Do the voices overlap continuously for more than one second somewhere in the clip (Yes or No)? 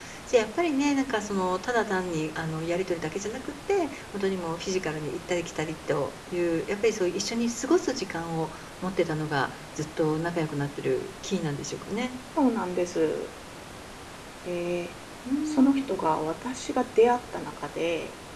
No